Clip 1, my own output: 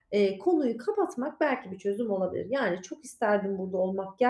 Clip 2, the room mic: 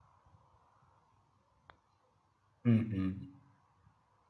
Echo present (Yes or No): No